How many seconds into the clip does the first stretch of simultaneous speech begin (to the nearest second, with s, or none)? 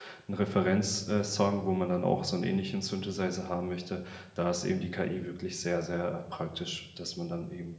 none